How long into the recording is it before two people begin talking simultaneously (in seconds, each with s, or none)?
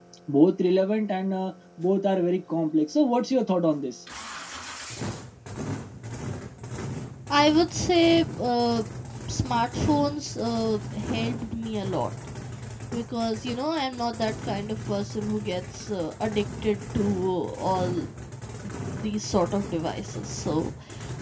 none